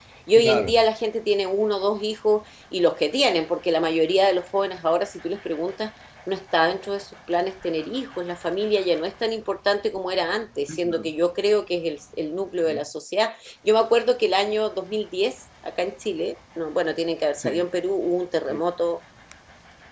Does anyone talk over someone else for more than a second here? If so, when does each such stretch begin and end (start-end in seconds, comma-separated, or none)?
none